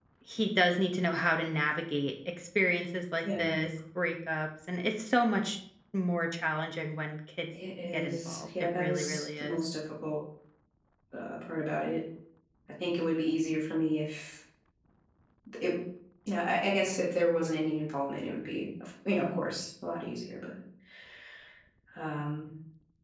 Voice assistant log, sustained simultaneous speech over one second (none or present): present